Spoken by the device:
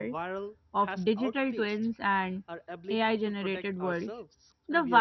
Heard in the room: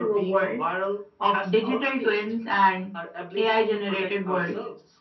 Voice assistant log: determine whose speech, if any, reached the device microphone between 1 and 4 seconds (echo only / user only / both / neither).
echo only